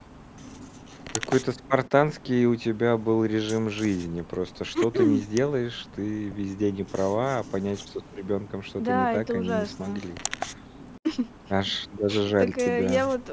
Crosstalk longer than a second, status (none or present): present